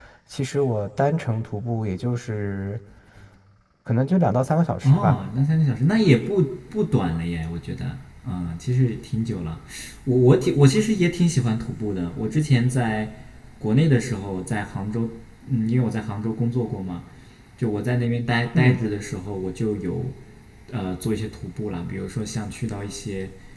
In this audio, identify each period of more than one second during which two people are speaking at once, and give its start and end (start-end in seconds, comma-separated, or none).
none